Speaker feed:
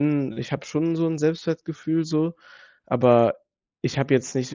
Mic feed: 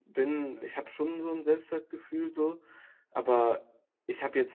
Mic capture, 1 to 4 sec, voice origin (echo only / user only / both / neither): echo only